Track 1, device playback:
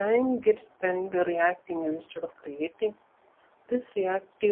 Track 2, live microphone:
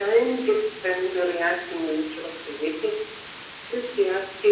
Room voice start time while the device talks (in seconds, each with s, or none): none